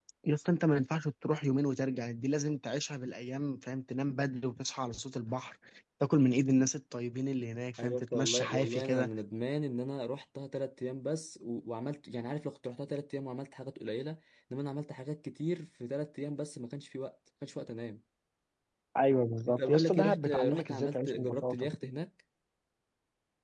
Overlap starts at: 7.8 s

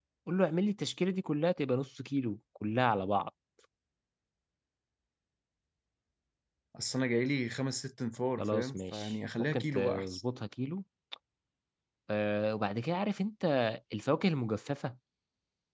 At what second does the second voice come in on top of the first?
8.4 s

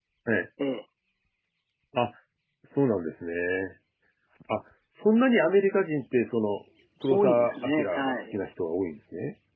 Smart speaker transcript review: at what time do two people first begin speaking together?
7.1 s

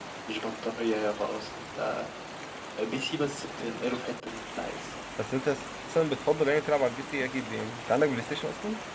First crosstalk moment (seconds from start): none

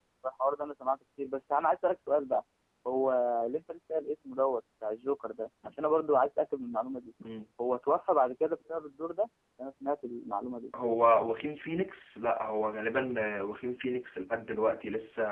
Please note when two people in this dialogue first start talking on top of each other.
none

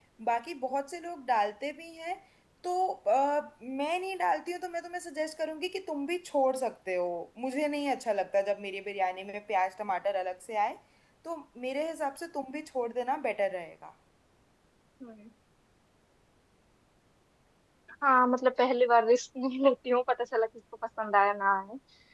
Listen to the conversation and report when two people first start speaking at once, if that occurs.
none

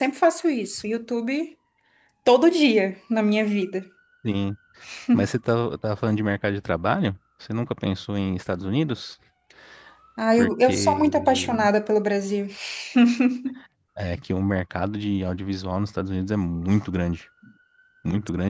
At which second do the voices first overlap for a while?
10.4 s

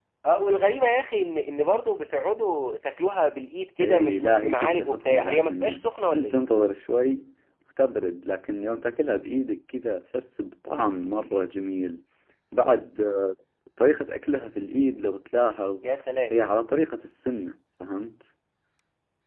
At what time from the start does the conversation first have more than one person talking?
3.8 s

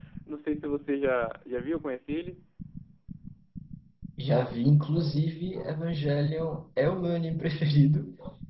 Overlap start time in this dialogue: none

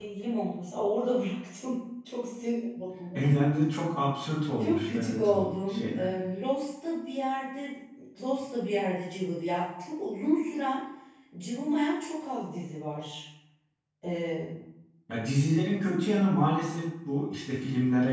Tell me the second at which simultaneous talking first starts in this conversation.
4.6 s

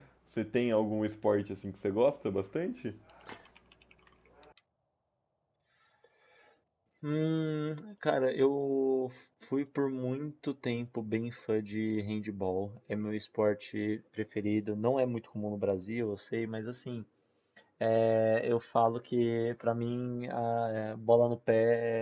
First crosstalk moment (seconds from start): none

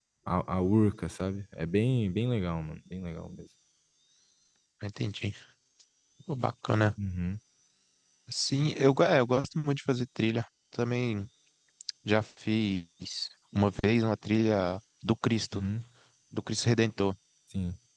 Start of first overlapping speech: none

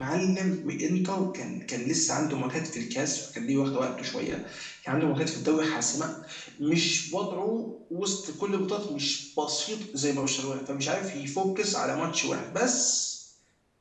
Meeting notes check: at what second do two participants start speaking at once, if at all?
none

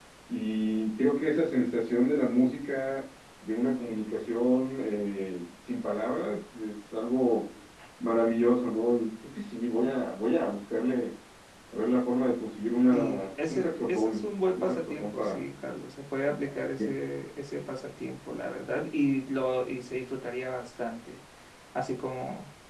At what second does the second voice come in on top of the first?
12.9 s

